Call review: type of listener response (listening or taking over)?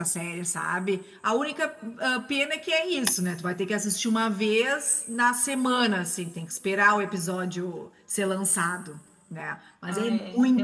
taking over